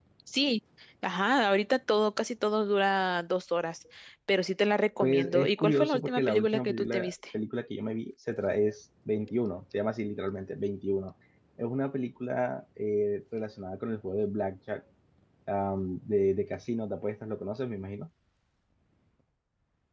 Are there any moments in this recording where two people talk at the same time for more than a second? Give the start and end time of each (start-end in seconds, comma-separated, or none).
5.0-7.1